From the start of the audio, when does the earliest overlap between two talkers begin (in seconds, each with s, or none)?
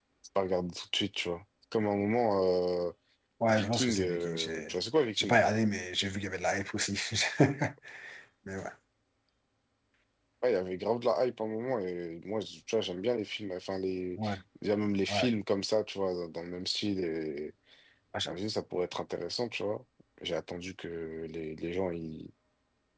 3.5 s